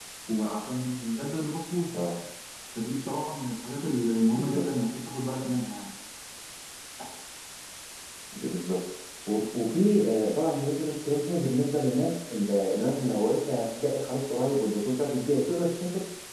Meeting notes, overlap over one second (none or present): none